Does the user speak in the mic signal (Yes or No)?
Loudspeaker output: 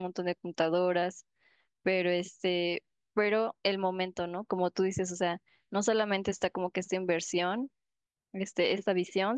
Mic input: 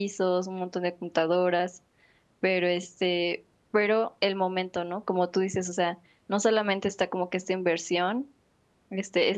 No